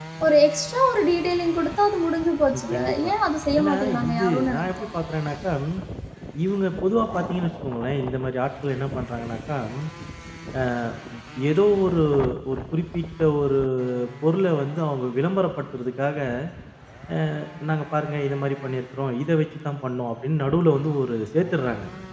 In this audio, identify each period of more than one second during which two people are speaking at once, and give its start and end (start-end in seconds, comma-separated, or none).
3.6-4.9